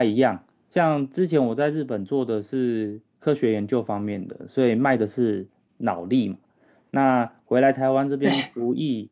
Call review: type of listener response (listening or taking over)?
listening